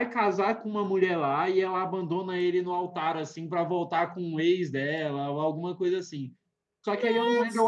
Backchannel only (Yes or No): Yes